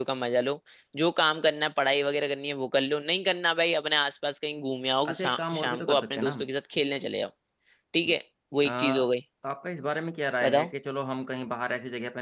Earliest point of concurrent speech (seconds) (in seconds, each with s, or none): 5.0 s